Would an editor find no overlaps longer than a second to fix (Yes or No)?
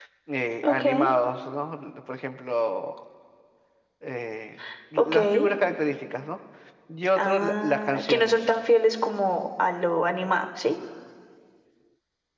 No